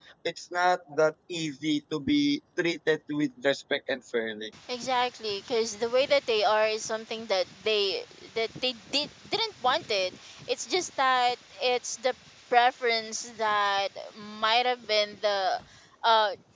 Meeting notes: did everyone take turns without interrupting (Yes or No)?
Yes